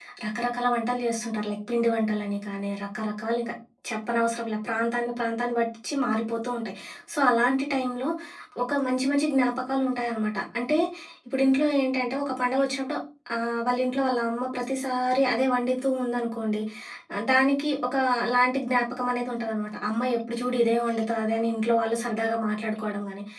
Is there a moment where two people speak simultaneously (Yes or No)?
No